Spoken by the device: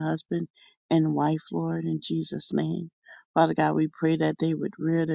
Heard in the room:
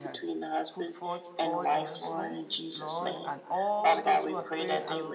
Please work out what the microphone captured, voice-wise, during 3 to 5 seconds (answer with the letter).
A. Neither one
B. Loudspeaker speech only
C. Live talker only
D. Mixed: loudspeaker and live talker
D